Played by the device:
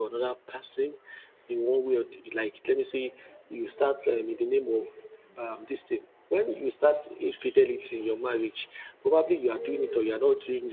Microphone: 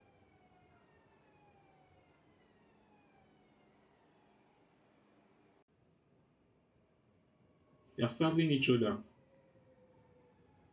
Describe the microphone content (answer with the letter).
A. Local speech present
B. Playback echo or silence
A